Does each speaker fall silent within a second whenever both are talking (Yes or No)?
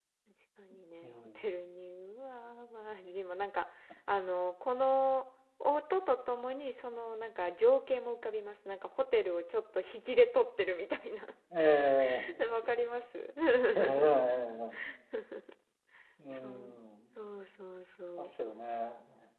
Yes